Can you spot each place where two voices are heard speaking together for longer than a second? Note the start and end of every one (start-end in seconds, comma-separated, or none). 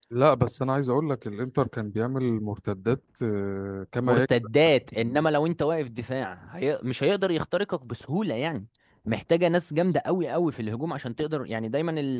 none